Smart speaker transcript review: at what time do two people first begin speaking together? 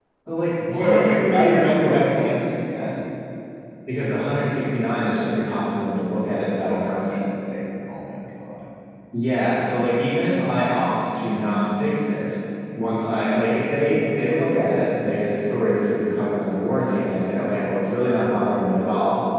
0.7 s

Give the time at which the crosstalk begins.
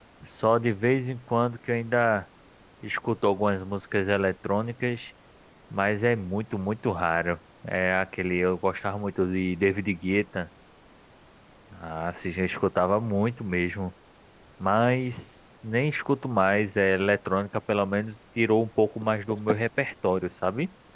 none

